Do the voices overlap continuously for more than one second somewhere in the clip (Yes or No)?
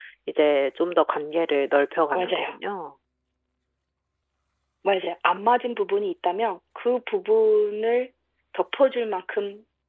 No